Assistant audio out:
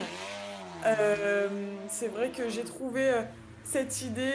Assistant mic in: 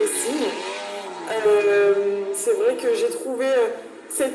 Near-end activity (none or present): none